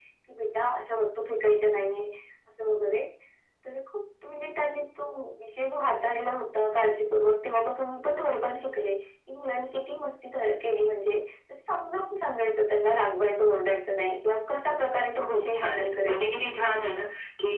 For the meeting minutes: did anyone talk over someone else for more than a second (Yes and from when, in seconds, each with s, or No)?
Yes, from 15.2 s